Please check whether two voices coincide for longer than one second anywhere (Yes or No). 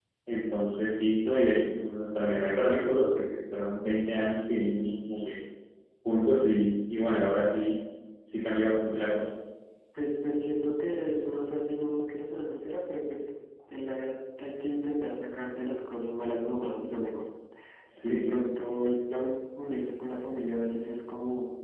No